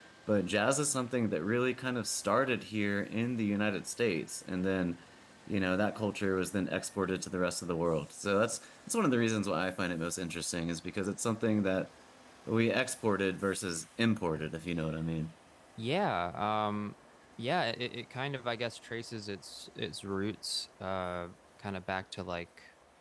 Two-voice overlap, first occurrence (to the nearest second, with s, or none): none